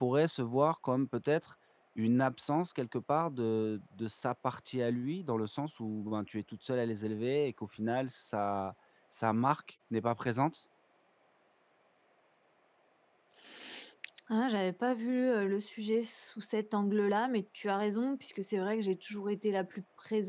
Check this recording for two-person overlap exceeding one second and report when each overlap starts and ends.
none

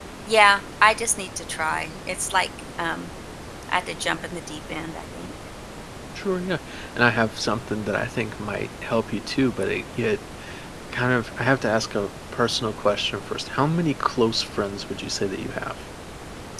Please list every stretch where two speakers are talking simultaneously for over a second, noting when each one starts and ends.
none

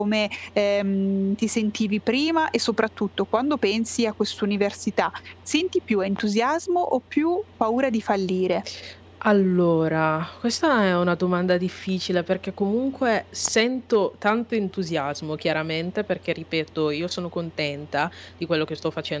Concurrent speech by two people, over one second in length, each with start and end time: none

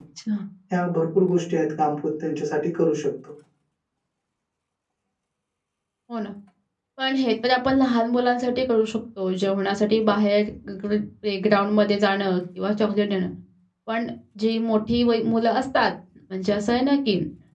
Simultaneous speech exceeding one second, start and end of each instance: none

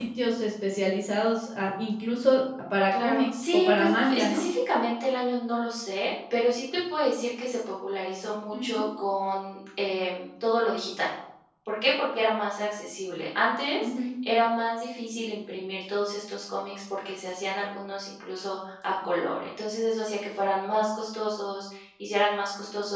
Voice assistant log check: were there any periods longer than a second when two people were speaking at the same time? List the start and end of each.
3.0-4.4

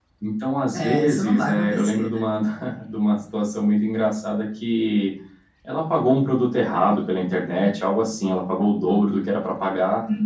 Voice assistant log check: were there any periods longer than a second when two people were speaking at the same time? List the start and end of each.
0.7-2.1

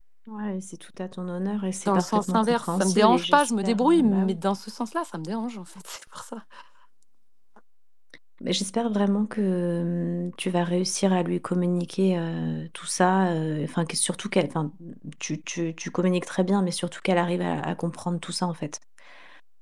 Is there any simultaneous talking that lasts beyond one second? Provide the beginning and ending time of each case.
1.9-4.4

